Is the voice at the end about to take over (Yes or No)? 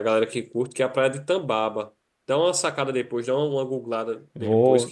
Yes